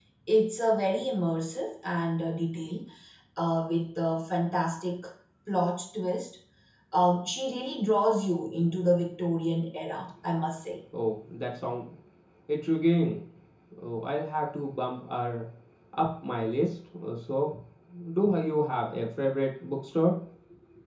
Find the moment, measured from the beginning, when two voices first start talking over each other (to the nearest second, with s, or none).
none